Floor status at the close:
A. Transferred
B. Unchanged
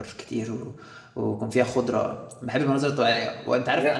B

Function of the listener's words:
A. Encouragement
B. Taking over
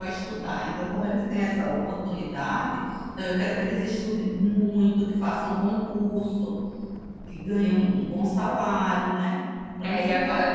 B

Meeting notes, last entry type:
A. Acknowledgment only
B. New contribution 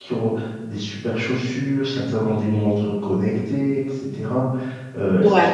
A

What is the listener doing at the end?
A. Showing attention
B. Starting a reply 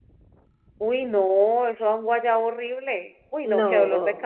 A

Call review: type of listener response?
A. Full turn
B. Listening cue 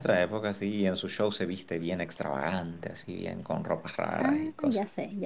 A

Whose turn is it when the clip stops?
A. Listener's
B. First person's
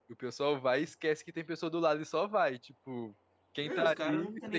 A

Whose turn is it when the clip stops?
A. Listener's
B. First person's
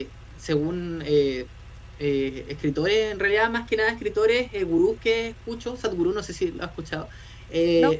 B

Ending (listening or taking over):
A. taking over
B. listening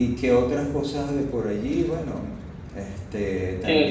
A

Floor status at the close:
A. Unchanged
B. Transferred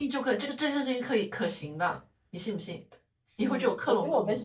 B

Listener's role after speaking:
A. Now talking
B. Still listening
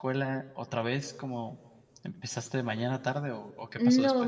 A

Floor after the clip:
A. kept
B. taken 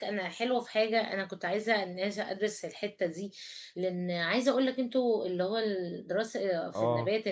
A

